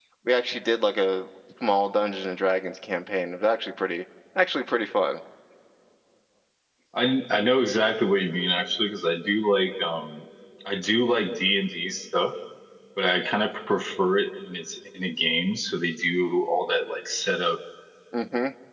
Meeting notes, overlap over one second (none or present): none